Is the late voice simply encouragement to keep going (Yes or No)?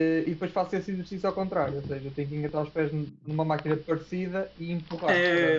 No